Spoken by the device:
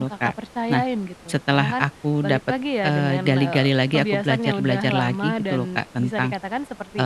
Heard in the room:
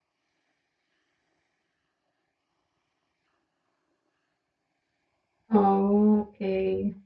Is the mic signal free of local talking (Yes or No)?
No